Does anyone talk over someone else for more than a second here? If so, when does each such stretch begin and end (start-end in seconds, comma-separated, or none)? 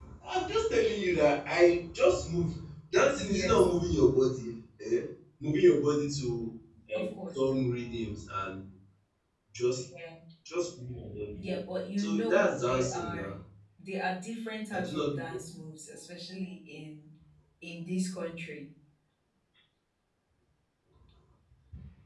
12.0-13.3